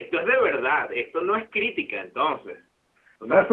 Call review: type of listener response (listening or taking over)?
taking over